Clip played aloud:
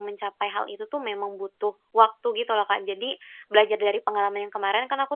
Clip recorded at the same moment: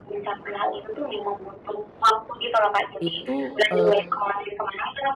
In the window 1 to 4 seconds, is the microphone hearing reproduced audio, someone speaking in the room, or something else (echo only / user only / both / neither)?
both